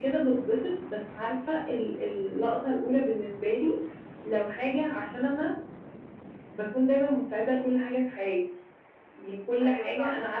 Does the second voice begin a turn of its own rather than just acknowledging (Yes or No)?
No